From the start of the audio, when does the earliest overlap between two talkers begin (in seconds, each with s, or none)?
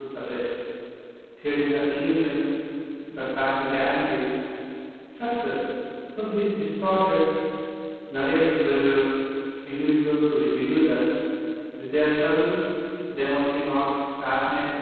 none